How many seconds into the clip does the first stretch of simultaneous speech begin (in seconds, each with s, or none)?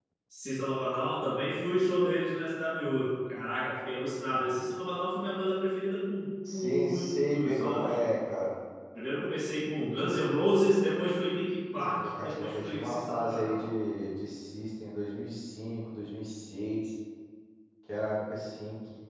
6.5 s